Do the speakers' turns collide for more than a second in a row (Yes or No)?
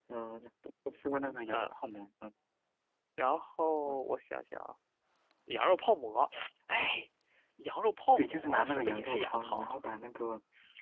Yes